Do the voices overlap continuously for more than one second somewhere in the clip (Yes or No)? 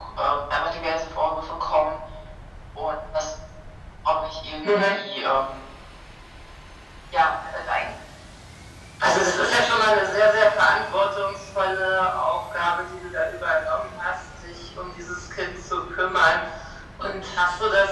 No